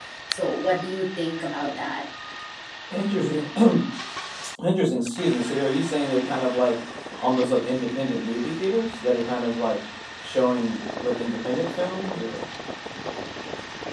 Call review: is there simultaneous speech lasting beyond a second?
No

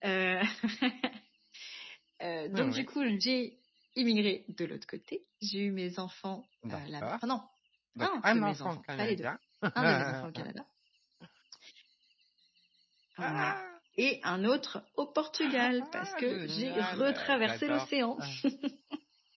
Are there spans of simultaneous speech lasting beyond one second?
Yes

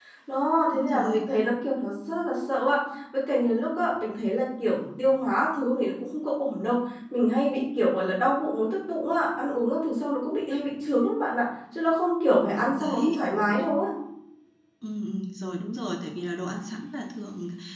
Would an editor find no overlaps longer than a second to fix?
Yes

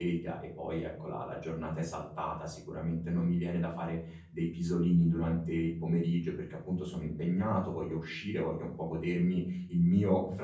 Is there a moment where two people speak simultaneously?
No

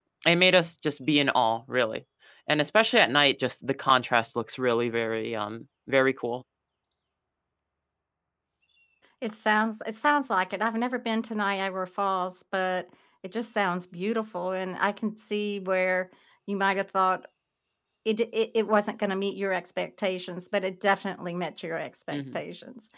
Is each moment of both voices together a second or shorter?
Yes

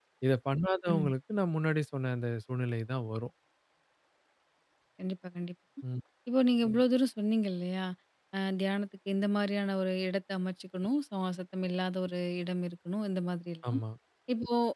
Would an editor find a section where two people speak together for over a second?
No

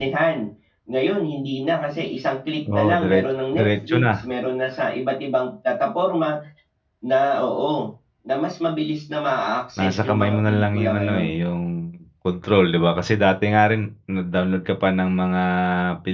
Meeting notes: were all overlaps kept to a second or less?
No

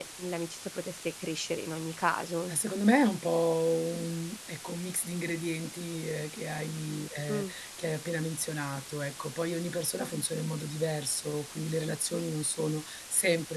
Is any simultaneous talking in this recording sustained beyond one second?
No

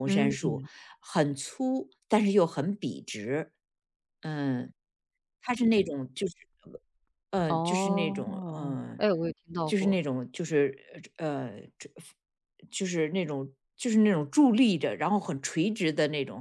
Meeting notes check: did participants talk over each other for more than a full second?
Yes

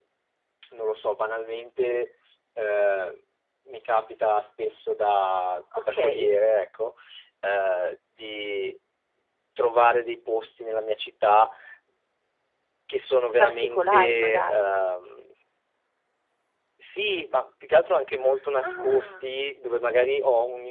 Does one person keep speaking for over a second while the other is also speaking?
Yes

